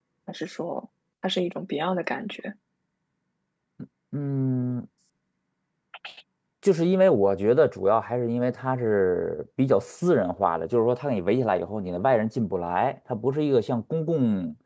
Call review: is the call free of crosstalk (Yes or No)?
Yes